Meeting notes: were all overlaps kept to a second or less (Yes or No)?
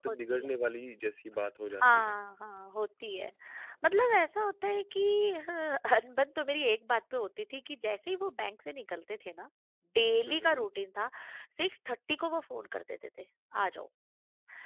Yes